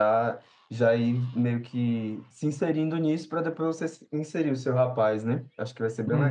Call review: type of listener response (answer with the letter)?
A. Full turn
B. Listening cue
A